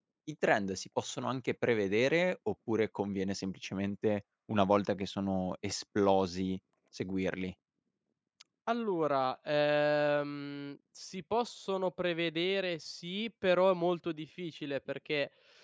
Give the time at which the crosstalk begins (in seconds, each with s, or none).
none